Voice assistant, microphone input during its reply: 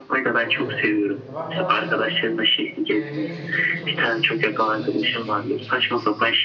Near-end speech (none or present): present